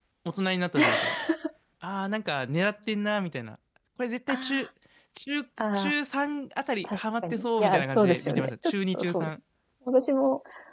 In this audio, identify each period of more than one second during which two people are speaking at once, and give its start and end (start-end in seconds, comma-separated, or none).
6.8-9.3